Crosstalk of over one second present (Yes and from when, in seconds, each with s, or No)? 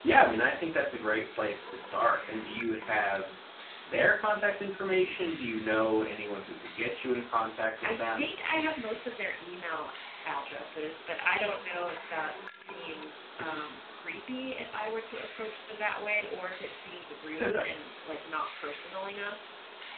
No